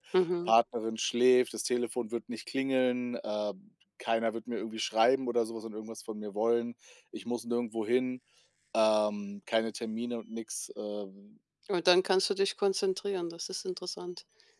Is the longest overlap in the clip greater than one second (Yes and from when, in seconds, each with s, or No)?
No